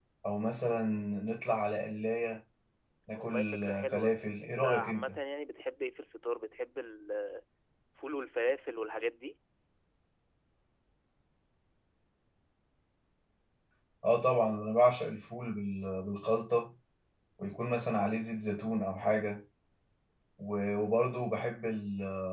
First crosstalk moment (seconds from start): 3 s

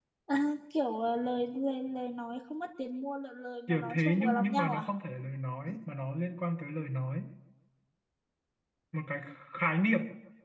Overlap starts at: 4 s

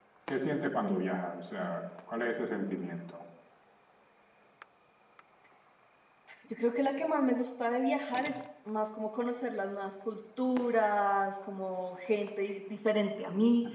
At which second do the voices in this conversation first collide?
none

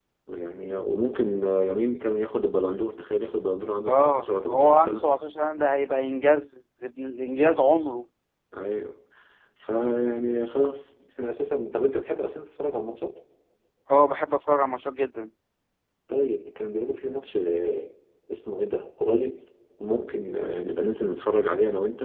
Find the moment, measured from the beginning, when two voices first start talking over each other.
4 s

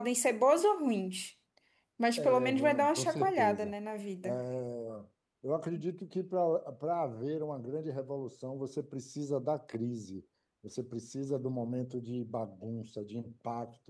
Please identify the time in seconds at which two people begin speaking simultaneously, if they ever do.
2 s

